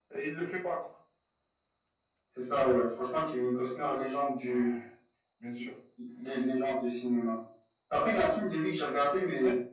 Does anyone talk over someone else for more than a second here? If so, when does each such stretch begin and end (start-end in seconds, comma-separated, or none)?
none